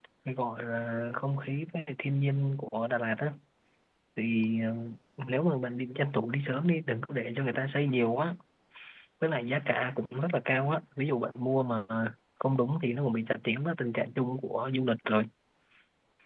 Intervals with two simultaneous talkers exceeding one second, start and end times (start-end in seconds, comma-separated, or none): none